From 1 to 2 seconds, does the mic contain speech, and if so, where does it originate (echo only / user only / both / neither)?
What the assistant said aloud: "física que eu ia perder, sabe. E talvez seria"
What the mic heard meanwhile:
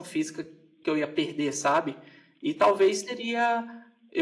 echo only